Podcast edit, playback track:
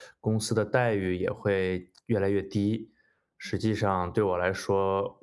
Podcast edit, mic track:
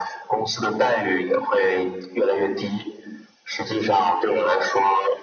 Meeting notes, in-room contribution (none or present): none